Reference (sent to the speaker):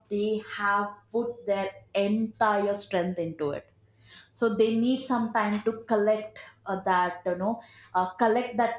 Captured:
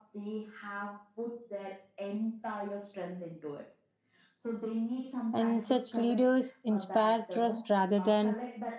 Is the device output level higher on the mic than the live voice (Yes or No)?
No